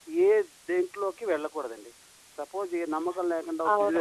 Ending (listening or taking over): listening